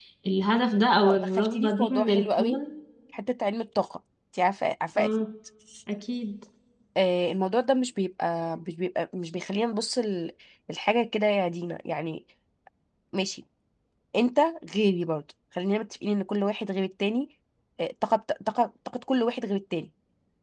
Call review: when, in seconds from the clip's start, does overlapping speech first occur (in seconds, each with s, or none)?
1.0 s